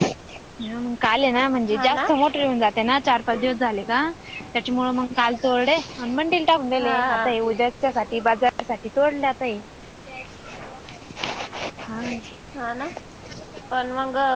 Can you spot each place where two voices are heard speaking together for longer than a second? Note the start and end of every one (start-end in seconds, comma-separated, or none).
none